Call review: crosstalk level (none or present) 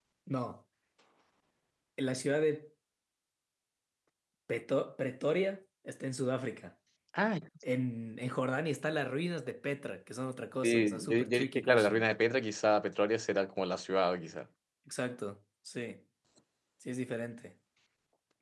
present